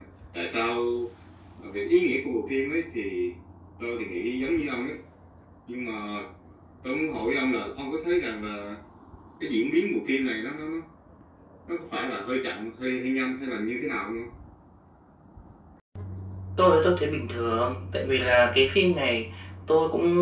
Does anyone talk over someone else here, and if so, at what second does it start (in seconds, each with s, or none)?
none